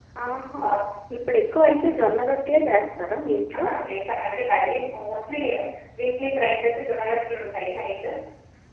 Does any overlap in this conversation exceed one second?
No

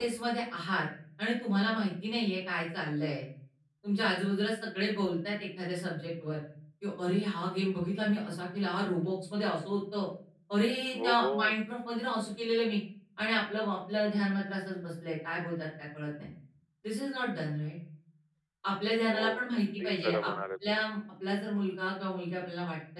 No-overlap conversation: No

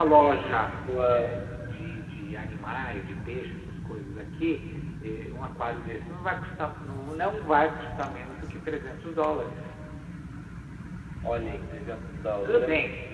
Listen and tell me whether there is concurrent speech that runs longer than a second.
No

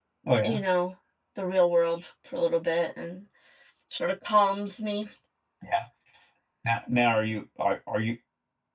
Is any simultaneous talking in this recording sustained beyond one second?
No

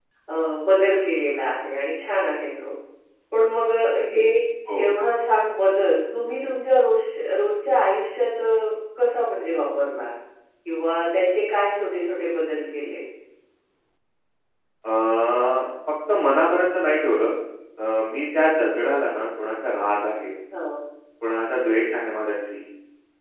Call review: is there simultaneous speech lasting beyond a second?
No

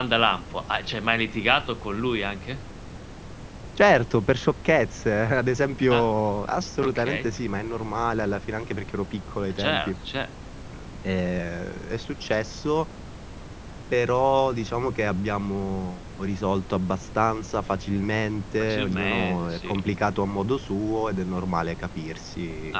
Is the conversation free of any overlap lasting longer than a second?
No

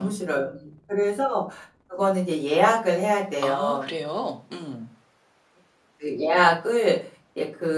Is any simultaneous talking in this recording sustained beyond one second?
No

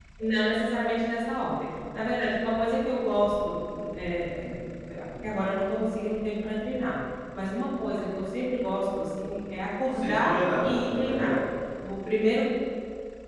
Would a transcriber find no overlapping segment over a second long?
No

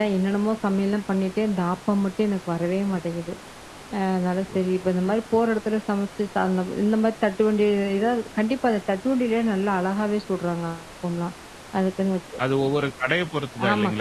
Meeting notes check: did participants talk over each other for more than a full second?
No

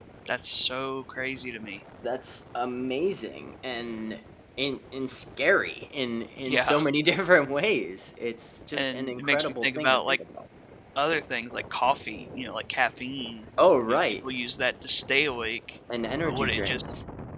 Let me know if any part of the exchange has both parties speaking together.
Yes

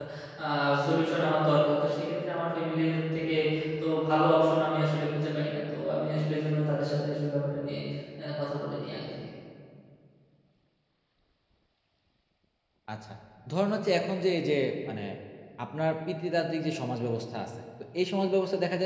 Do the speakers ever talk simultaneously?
No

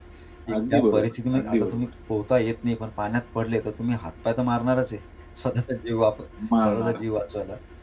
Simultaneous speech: Yes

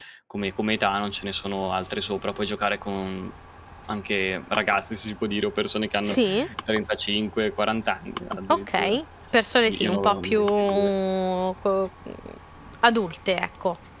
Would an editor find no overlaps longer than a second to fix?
No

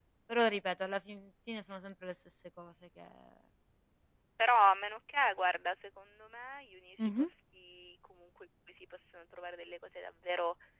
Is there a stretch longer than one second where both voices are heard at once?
No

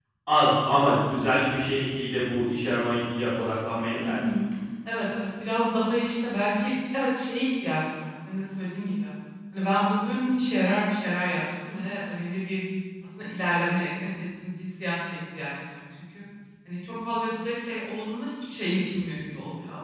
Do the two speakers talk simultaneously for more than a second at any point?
No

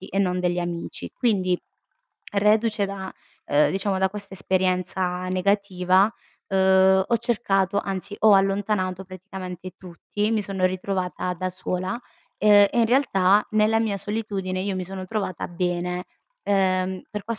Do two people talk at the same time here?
No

